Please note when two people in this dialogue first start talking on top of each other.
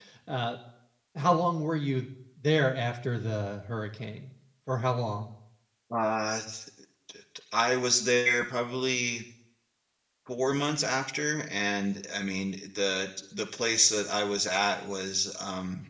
none

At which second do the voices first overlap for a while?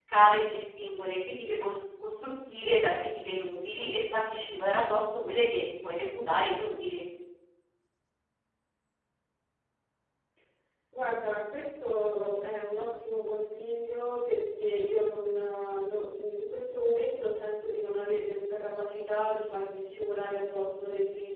none

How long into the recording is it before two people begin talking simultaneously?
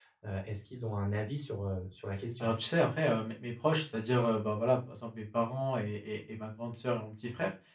none

